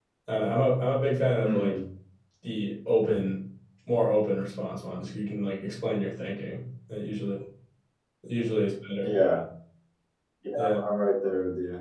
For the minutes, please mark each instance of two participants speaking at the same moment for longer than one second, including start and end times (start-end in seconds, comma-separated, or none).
none